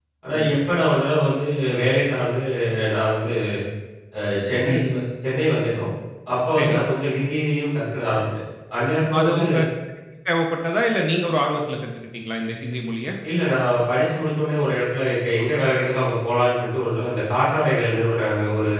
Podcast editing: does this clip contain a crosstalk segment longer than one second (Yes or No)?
No